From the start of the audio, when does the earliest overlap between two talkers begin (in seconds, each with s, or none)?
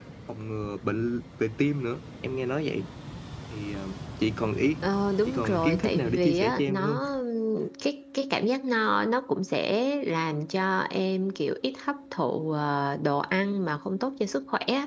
5.2 s